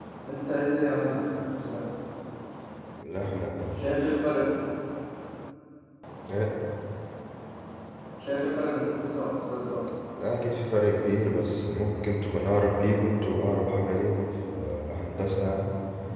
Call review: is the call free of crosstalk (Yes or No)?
Yes